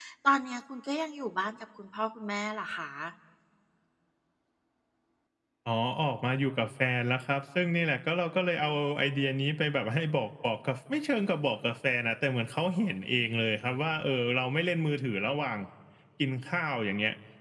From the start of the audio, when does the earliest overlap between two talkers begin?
none

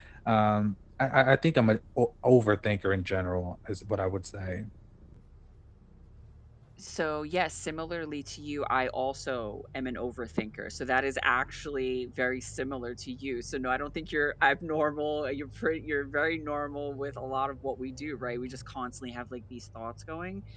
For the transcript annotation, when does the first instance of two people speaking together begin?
none

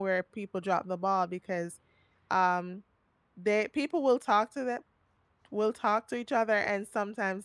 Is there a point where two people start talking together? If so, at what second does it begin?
none

